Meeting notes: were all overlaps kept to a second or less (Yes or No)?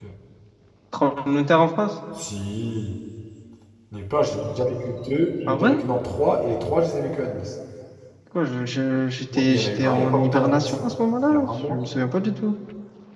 No